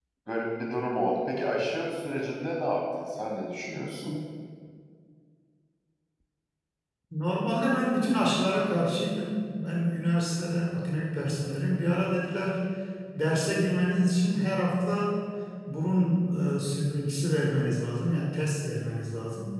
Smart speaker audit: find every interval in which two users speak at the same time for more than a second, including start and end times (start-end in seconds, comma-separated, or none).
none